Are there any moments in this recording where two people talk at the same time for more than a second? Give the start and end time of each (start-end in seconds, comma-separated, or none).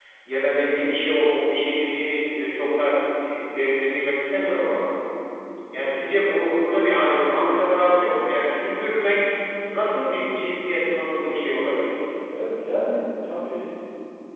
none